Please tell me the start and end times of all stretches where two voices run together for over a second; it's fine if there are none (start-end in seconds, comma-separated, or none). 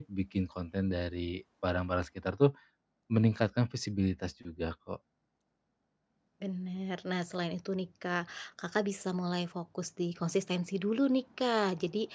none